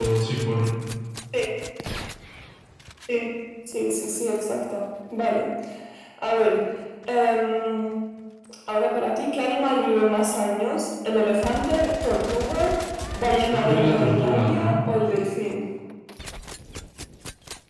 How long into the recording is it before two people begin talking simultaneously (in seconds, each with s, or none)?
13.5 s